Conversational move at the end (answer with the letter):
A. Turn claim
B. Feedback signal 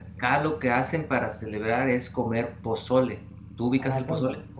A